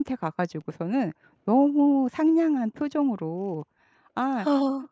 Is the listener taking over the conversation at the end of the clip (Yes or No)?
No